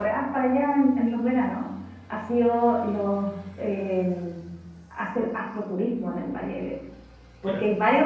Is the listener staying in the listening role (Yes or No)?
Yes